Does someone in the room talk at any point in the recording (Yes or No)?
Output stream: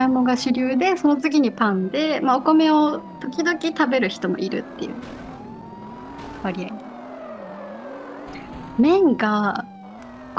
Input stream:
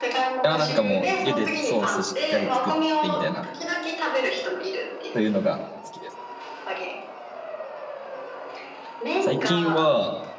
Yes